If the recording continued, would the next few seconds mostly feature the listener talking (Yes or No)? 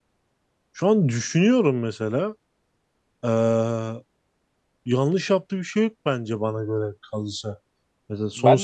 Yes